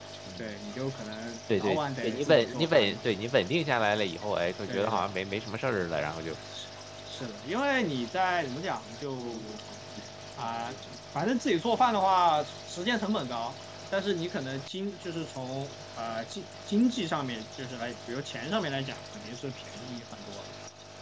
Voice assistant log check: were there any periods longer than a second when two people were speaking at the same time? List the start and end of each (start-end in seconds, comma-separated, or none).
1.6-3.0